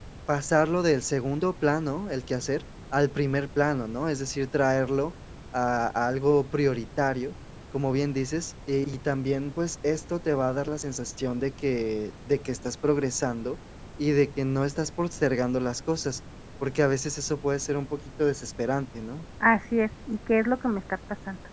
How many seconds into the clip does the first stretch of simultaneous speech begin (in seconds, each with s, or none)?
none